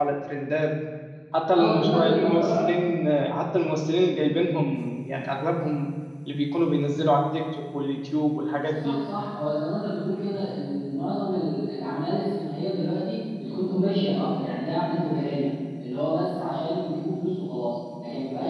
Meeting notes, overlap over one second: present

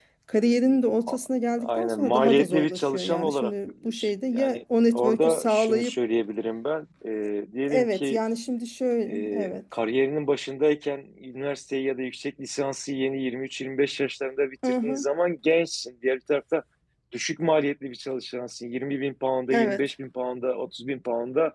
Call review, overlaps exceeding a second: present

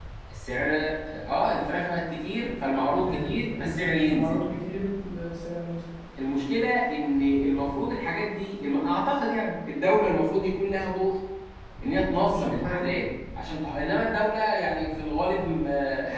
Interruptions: present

